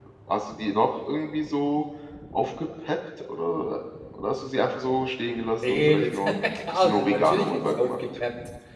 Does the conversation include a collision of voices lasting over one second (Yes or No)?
Yes